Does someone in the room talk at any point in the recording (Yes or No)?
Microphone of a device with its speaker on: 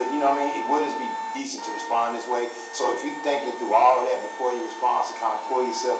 No